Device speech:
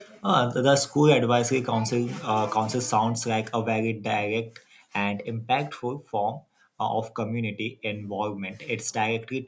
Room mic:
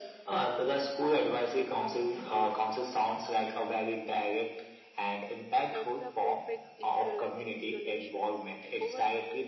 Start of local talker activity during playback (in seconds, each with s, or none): 5.7 s